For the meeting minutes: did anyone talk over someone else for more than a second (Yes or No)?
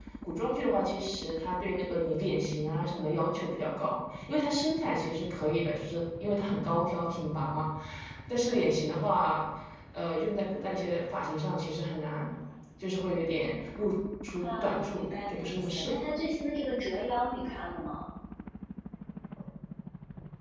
Yes